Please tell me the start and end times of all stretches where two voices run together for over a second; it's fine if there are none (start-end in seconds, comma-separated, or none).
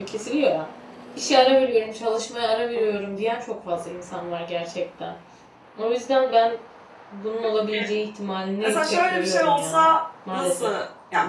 8.6-9.8